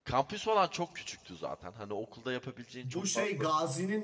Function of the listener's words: taking over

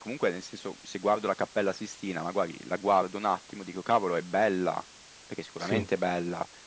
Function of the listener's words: listening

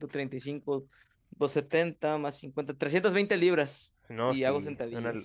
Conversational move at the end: taking over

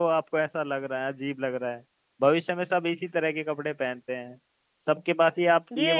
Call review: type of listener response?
listening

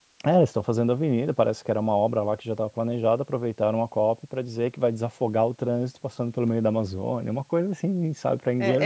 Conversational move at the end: taking over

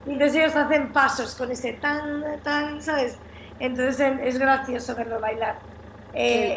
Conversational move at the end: listening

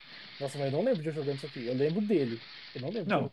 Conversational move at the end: taking over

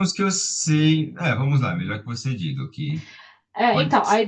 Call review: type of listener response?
taking over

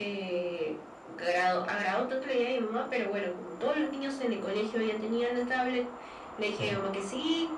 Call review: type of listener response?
listening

